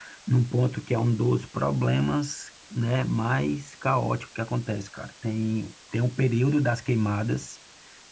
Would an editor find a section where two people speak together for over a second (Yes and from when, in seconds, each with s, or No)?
No